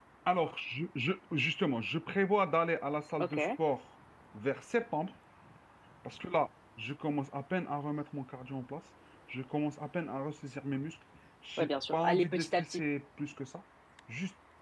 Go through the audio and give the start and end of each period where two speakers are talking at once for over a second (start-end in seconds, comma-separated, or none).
11.6-12.8